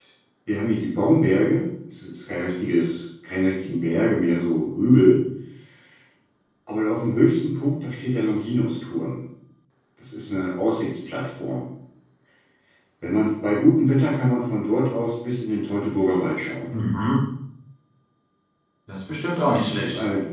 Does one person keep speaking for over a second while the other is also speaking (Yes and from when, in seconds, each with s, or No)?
No